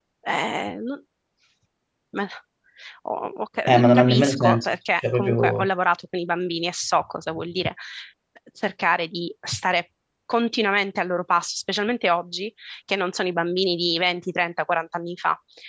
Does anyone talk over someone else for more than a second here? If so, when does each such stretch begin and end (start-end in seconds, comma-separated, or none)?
3.7-5.7